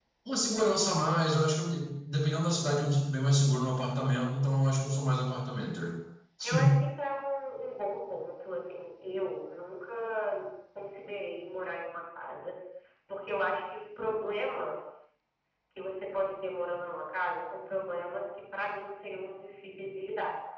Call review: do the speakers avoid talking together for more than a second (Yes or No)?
Yes